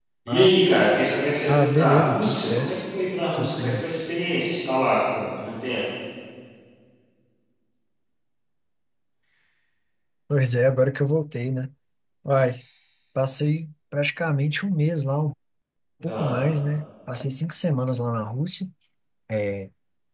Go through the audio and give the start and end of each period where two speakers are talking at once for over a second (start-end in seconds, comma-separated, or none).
1.5-2.7